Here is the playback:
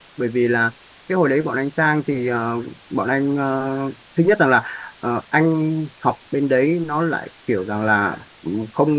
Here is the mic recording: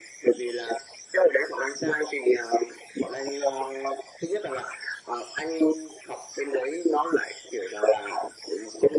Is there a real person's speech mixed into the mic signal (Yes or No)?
No